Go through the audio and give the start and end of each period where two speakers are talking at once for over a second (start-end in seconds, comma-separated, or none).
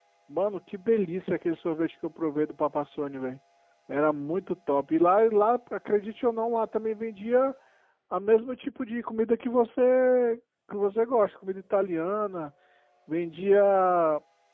none